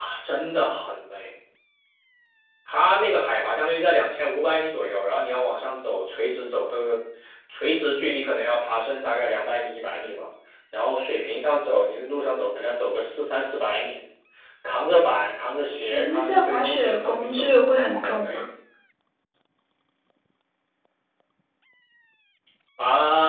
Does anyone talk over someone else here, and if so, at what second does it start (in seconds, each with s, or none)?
15.9 s